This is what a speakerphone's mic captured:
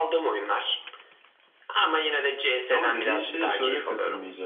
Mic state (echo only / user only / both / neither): both